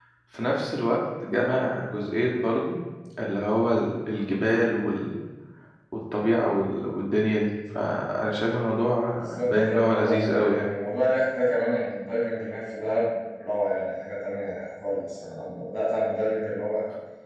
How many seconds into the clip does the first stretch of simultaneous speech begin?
9 s

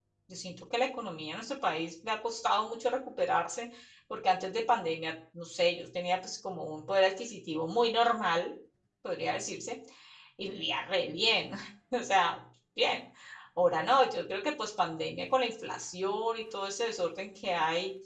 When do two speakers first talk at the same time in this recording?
none

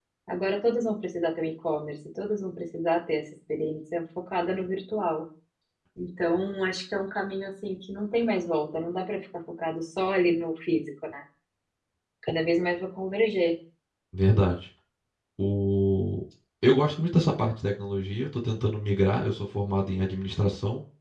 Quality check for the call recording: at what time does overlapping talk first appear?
none

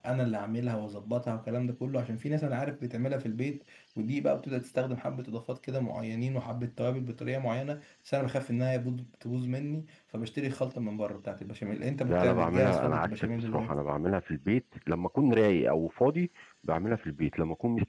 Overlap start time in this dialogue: 12 s

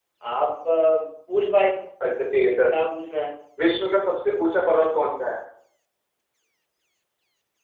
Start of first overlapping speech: none

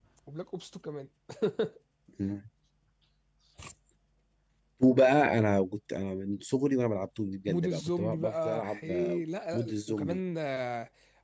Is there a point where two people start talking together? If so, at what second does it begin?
7 s

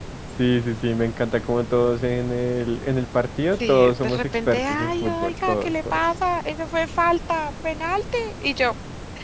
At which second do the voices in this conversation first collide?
4 s

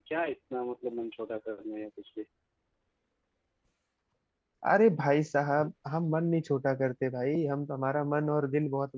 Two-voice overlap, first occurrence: none

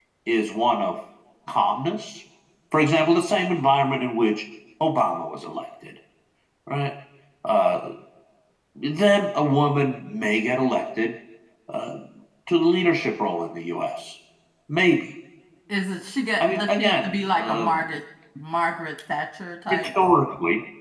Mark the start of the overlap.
16 s

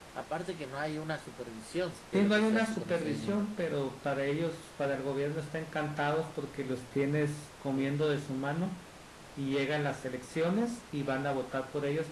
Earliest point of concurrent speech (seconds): 2 s

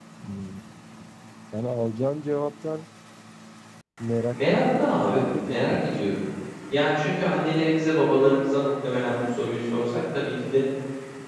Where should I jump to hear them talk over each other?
4 s

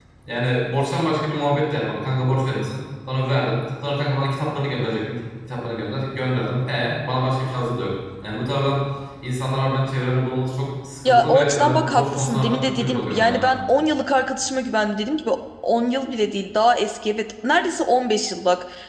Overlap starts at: 11 s

